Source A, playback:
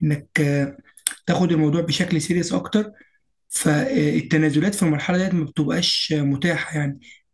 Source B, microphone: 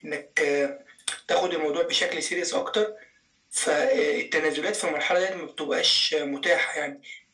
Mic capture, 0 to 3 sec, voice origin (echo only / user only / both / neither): echo only